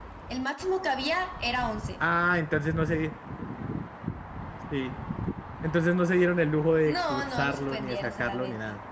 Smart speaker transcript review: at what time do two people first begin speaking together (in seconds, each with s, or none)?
6.9 s